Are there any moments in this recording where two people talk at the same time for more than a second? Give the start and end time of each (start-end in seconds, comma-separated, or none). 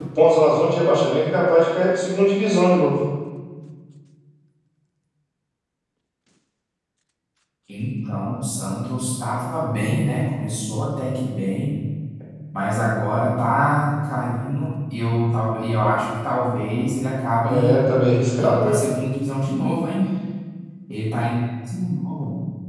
none